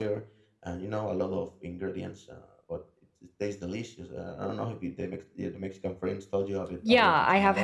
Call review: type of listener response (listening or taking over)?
taking over